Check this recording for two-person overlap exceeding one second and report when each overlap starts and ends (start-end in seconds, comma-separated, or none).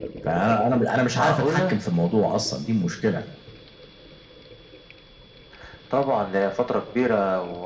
none